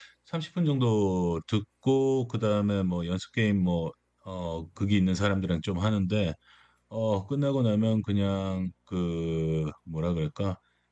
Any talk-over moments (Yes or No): No